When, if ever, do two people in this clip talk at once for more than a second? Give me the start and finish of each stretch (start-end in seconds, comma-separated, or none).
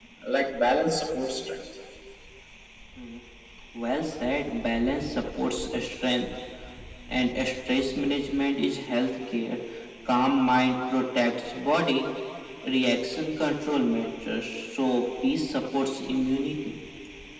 none